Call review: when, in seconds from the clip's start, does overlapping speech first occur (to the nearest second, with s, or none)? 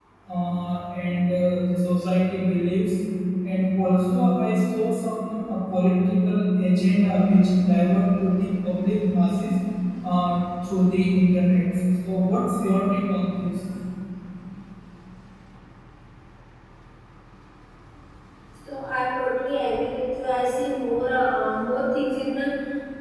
none